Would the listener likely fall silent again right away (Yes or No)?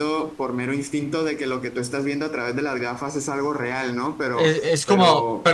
No